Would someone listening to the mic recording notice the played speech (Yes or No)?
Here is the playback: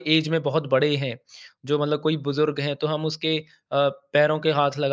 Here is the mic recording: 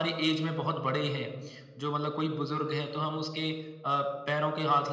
Yes